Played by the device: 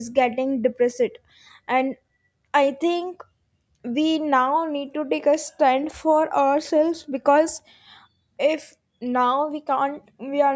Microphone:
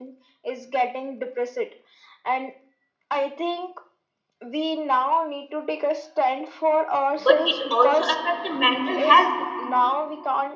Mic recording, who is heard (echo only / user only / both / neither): both